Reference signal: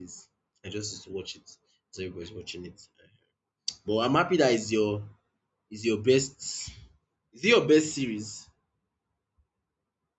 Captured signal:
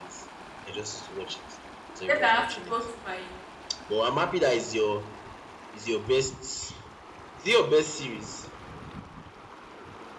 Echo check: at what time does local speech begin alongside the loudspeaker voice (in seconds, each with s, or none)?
2.1 s